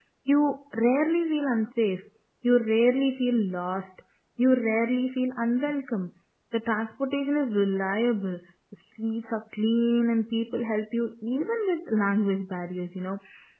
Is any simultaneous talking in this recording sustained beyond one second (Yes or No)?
No